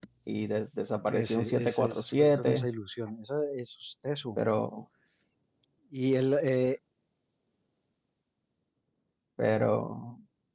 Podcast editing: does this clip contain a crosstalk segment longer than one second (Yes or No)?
Yes